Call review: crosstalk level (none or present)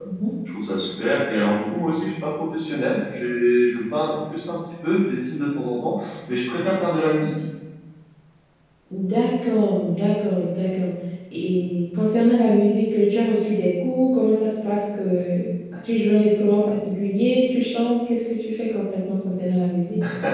none